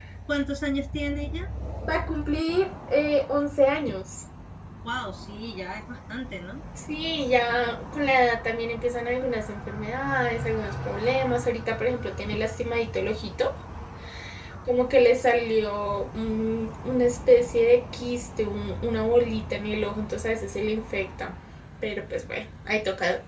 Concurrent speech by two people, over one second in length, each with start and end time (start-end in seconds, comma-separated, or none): none